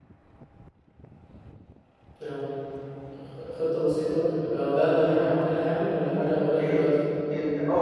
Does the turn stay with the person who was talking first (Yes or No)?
No